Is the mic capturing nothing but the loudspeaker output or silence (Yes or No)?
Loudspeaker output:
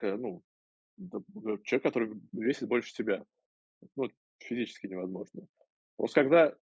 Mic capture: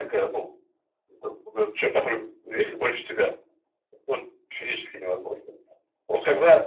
Yes